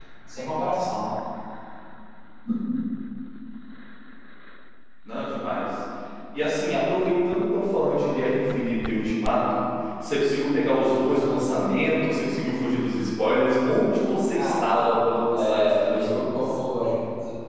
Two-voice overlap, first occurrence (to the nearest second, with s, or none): 14 s